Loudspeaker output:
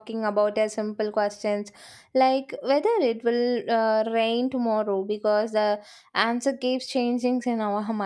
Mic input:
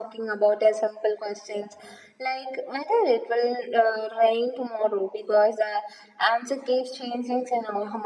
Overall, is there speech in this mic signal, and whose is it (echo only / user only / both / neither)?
echo only